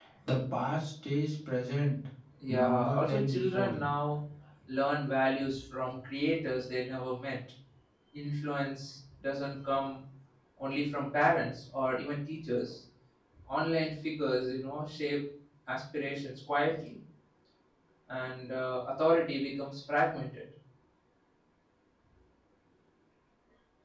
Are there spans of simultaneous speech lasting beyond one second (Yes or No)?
Yes